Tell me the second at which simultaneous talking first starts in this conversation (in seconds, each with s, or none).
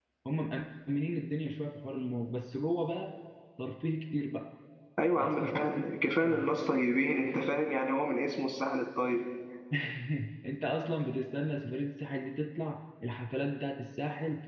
5.2 s